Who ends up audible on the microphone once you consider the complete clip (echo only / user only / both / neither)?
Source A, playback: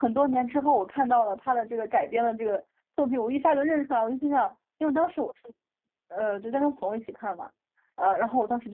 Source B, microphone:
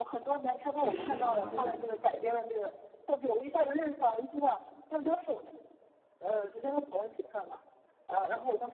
both